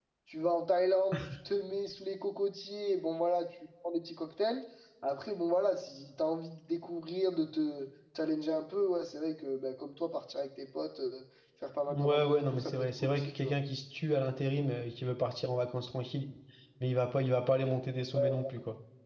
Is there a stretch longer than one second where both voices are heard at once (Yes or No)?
Yes